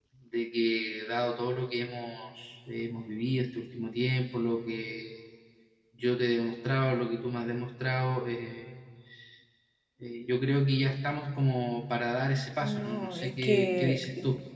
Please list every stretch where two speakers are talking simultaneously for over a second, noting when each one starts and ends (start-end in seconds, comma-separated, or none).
12.6-14.0